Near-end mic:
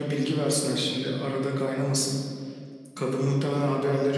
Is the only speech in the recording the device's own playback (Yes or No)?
Yes